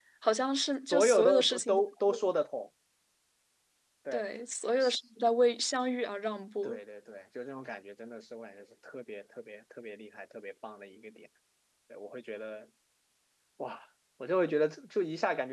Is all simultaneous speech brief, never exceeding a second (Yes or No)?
No